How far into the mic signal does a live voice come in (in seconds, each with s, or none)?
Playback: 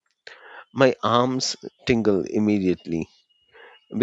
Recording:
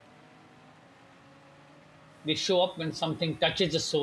2.2 s